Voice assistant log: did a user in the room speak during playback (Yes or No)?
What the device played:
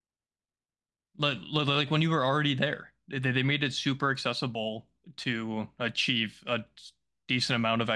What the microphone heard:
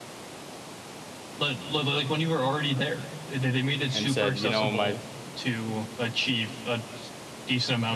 Yes